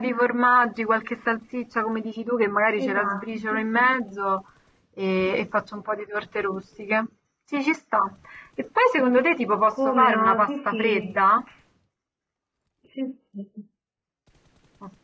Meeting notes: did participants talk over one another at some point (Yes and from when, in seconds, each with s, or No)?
Yes, from 2.8 s